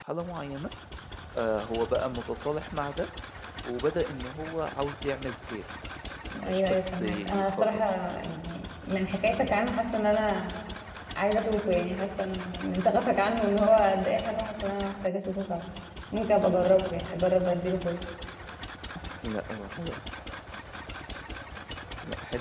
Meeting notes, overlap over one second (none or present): present